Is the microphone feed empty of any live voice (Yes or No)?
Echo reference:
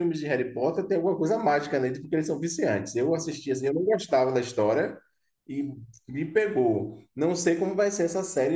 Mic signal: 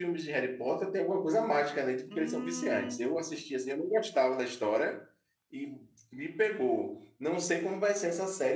No